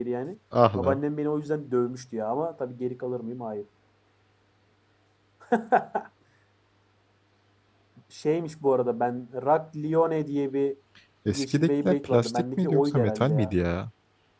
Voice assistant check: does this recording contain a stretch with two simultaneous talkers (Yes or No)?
Yes